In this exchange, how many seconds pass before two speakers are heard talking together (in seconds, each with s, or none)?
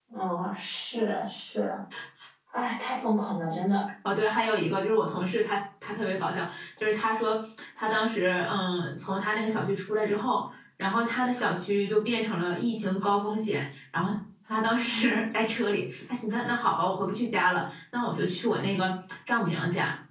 none